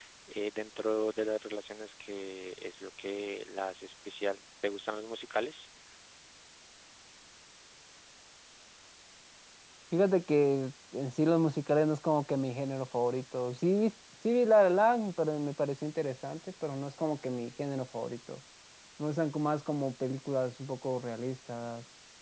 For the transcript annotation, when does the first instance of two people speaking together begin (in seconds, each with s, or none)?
none